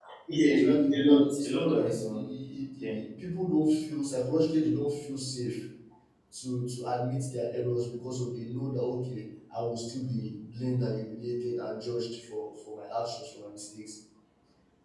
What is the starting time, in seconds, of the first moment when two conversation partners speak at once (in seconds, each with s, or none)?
0.6 s